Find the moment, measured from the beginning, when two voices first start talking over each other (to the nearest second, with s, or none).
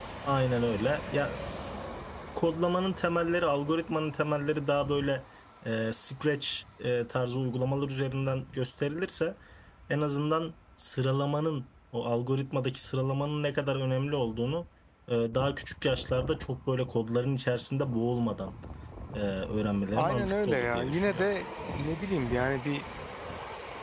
20 s